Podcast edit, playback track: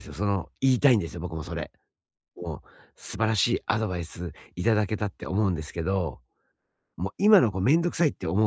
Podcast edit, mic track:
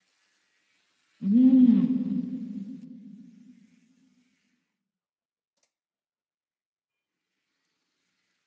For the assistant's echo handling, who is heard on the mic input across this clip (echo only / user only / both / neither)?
user only